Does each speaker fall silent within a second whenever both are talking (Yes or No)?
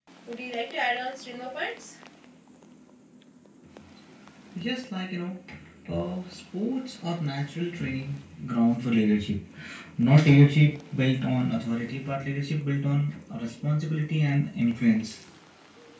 Yes